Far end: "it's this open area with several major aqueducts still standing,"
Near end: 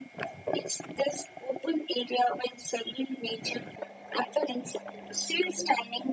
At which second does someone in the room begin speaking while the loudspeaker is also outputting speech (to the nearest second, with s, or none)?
none